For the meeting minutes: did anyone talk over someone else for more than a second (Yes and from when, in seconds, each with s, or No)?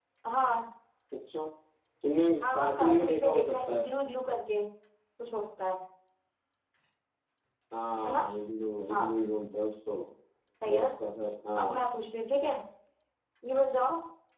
Yes, from 2.4 s